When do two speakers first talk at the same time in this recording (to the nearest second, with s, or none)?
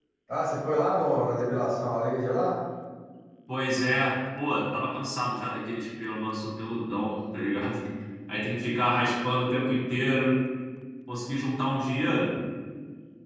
none